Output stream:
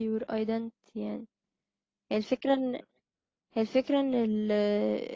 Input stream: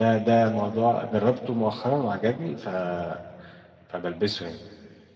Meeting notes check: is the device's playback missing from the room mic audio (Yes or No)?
Yes